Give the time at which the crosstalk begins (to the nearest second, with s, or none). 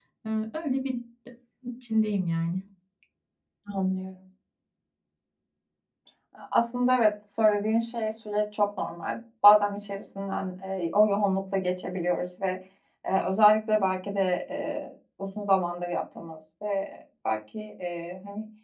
none